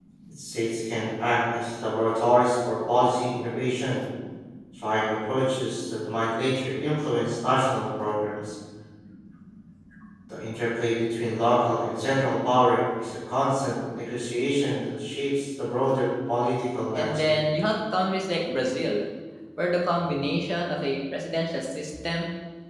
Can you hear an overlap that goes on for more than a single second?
No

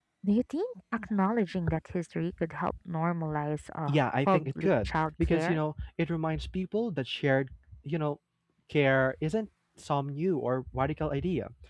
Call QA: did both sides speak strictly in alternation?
No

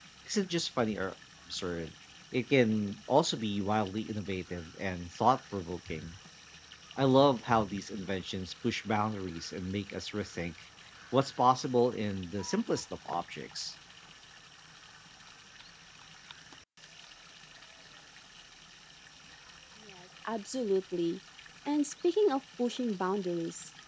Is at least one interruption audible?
No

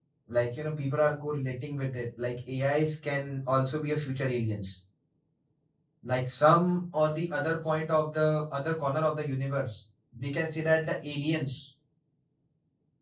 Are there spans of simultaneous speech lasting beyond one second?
No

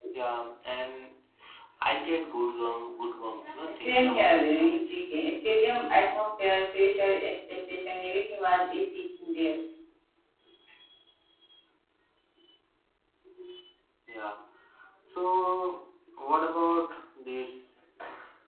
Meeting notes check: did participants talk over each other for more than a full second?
Yes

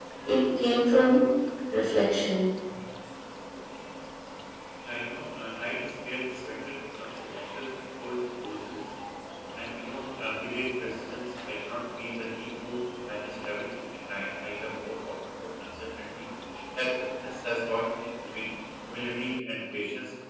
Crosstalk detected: No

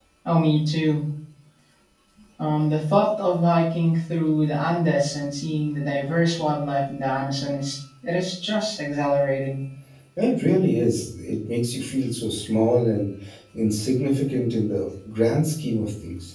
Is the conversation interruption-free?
Yes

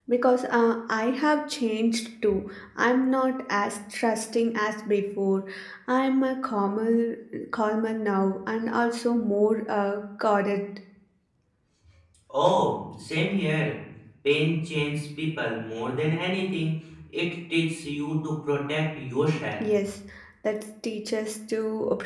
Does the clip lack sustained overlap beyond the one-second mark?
Yes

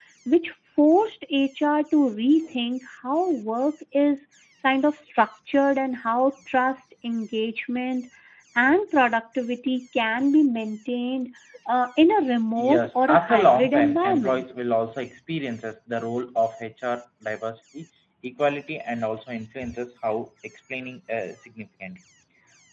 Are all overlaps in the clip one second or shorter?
No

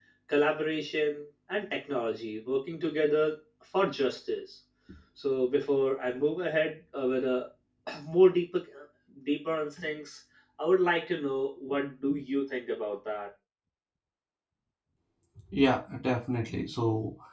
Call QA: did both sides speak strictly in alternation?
Yes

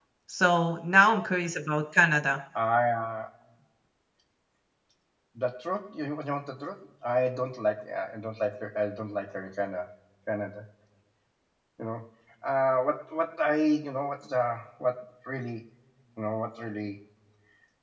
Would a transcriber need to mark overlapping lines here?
No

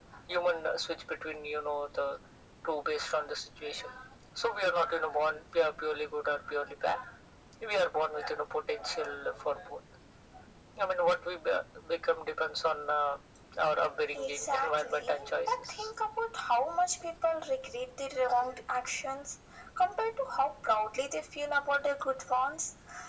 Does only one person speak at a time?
No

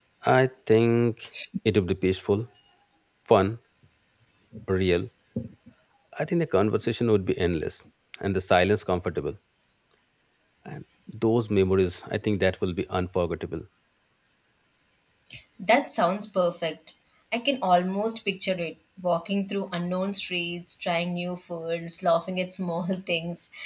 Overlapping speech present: No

